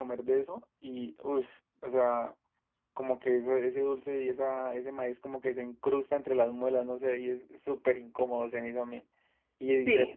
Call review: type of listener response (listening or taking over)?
listening